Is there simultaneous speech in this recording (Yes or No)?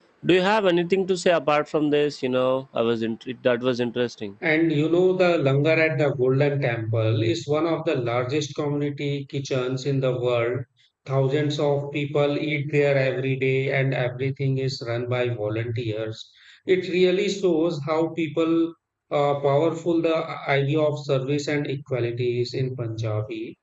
No